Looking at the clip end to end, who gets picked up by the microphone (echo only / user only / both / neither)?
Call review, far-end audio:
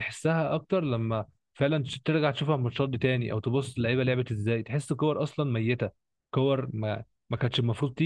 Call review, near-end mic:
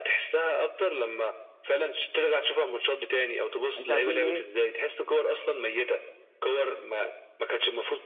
both